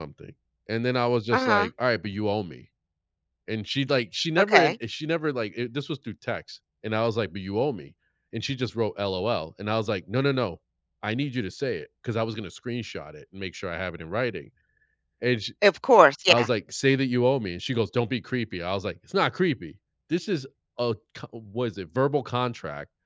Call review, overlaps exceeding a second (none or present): none